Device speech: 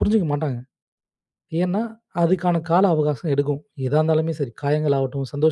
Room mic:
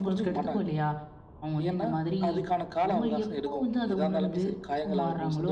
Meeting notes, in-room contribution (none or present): present